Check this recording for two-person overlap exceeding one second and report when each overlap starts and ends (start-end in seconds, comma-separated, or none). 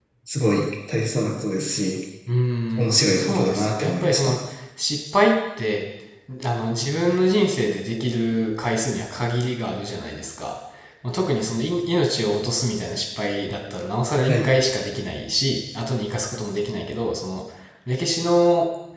3.0-4.3